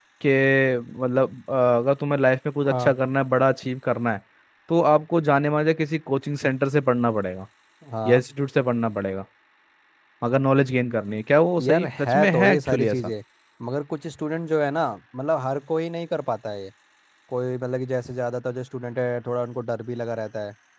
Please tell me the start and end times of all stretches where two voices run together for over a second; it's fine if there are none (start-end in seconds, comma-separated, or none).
11.6-13.1